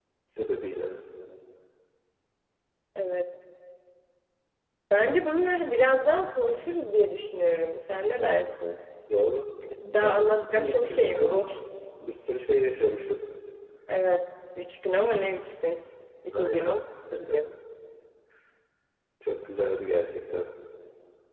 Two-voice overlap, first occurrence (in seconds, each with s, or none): 10.0 s